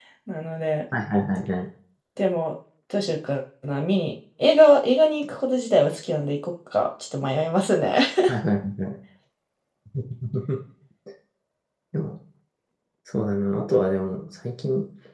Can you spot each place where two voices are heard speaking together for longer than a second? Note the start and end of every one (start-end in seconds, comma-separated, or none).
none